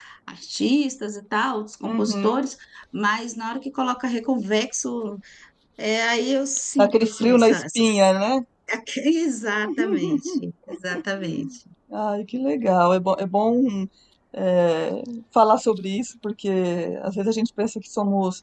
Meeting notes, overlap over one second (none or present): present